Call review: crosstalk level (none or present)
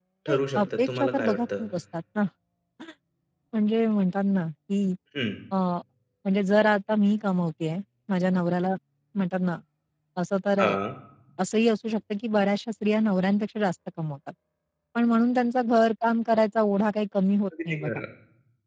present